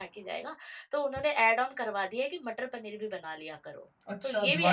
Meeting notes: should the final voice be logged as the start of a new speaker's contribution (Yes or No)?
Yes